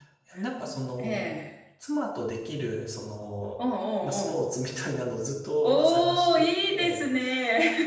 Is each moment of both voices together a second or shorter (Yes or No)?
No